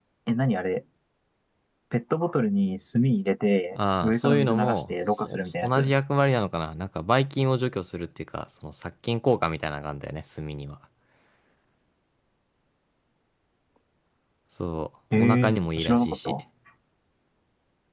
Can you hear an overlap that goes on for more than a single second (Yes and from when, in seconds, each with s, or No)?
Yes, from 3.7 s